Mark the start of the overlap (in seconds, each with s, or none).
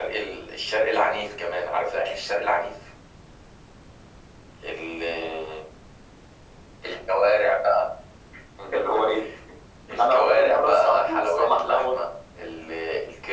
10.0 s